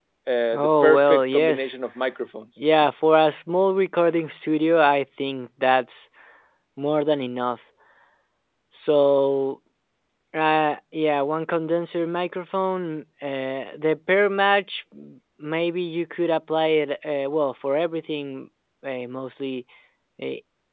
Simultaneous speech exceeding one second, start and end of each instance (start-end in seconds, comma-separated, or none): 0.5-1.7